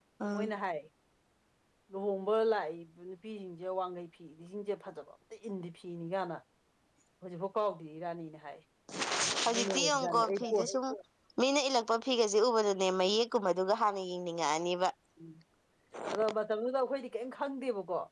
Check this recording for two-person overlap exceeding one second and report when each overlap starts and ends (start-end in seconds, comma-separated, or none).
9.5-10.7